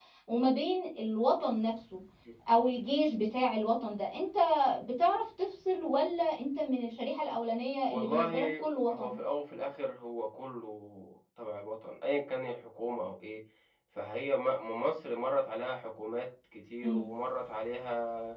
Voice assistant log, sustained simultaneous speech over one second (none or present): present